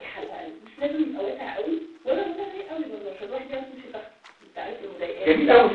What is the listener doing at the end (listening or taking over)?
taking over